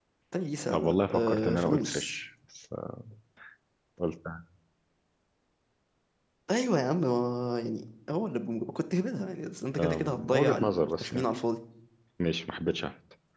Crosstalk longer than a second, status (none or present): present